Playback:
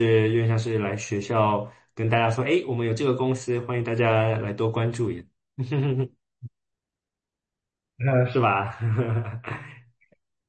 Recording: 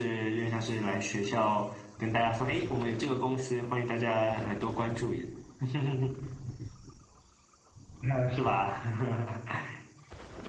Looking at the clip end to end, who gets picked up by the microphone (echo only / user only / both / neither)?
echo only